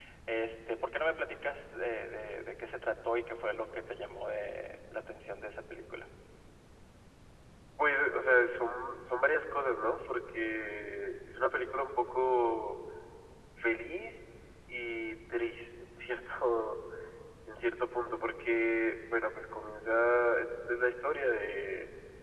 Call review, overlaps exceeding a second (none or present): none